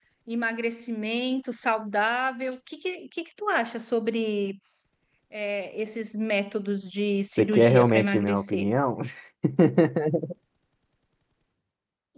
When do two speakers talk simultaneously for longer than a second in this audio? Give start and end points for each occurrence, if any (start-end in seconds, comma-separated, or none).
7.4-8.7